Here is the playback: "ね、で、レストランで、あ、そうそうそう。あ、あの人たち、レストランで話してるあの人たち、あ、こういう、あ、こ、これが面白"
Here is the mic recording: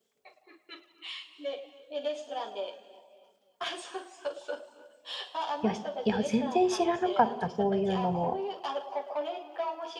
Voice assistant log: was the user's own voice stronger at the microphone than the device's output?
Yes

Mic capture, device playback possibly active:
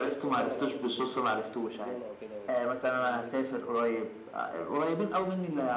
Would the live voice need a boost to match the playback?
Yes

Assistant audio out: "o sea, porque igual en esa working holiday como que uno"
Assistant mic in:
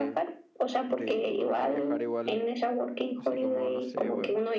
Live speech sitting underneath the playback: Yes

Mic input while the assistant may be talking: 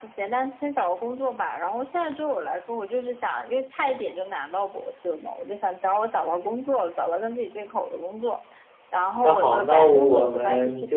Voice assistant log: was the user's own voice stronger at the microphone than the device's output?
Yes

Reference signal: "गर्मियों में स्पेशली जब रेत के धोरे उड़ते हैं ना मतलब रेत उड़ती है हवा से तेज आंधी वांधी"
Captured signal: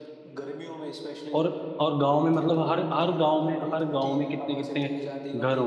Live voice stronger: Yes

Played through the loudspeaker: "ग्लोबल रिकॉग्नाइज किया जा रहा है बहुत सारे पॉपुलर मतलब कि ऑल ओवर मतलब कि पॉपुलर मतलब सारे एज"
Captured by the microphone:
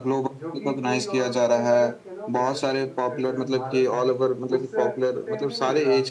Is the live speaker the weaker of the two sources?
Yes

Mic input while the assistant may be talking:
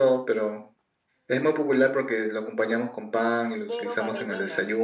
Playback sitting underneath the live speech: No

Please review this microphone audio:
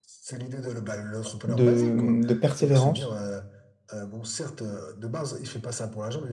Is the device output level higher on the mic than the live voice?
No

